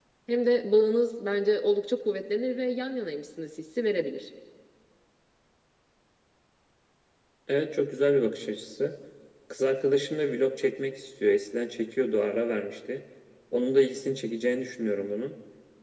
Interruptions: none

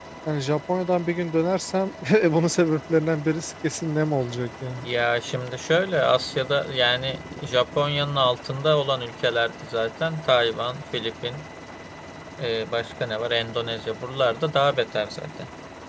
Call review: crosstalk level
none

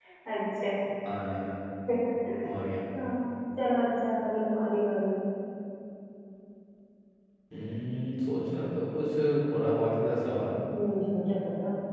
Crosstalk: none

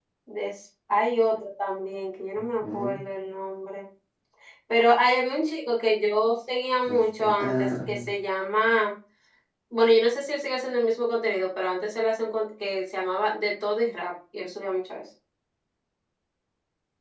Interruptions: present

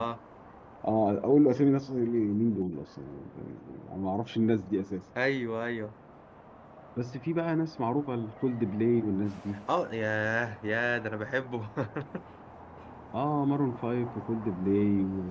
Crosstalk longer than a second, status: none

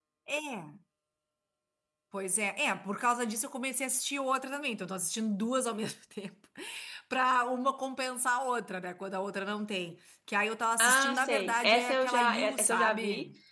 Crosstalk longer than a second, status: present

